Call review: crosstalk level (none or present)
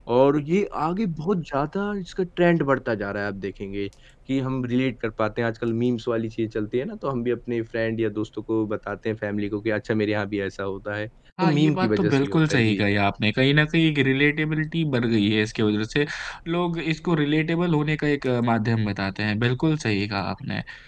present